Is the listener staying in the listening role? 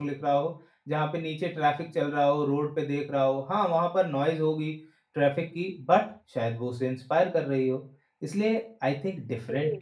Yes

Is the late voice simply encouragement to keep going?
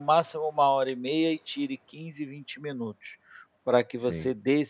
Yes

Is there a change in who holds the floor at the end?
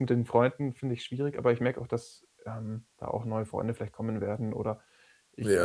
Yes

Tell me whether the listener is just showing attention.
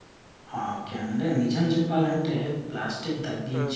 Yes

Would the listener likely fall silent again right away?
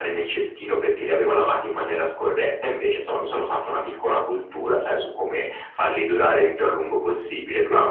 No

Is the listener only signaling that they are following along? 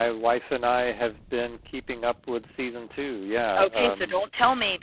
No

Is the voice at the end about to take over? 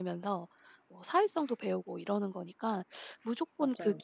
No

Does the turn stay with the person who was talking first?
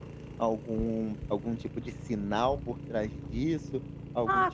No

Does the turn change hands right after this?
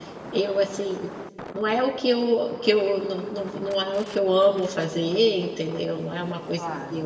No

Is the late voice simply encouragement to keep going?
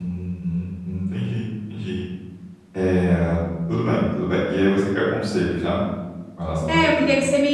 No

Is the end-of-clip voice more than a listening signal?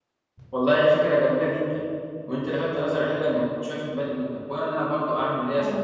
No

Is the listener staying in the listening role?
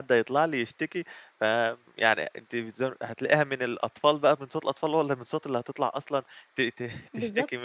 No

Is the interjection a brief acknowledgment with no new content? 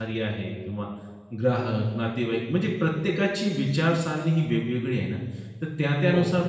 Yes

